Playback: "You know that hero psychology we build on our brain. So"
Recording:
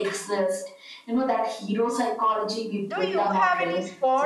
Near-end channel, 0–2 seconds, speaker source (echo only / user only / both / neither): echo only